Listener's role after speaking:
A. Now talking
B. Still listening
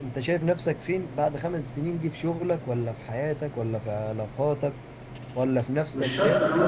A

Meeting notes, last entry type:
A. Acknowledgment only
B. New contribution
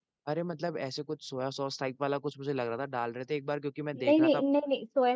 B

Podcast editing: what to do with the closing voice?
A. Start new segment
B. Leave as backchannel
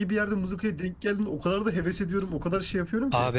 A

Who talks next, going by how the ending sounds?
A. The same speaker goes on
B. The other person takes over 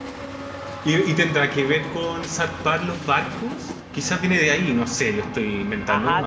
B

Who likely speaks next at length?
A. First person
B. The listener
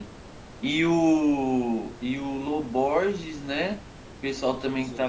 A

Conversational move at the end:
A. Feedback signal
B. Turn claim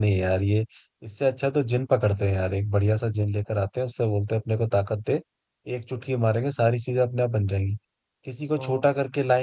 A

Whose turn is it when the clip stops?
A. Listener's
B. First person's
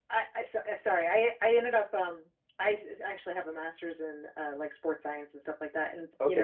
B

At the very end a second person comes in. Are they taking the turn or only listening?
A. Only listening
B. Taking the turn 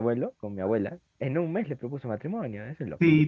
B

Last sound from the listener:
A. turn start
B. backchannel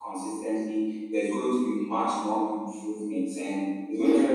B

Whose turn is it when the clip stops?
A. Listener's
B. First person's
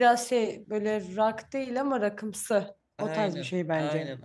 A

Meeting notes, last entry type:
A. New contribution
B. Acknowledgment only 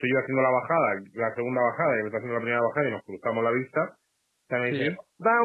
B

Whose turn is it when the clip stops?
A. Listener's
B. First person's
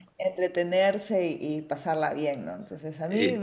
B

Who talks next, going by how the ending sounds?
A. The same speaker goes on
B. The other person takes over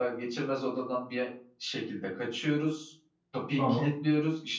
A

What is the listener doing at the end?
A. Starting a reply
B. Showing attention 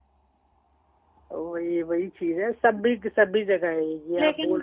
A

